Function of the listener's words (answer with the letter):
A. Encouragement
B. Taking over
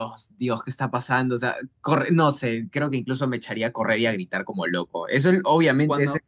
B